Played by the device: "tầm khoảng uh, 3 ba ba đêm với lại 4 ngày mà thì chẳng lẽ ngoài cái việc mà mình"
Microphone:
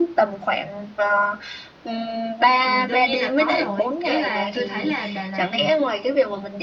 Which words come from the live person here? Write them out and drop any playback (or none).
Ừ, Đương nhiên là có rồi. Ý là tôi thấy là Đà Lạt ừ,